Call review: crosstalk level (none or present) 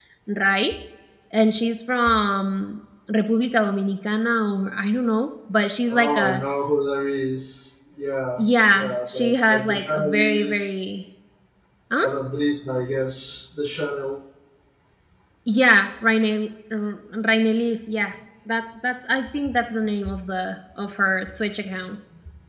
present